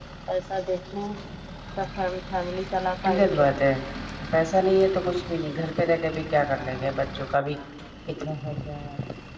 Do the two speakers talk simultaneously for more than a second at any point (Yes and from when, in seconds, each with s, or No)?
No